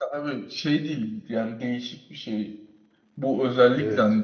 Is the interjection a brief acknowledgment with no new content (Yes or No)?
Yes